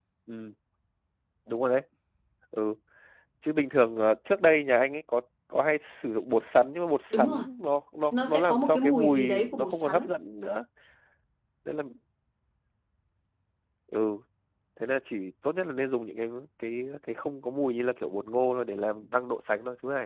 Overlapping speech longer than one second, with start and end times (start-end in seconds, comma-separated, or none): 8.1-10.1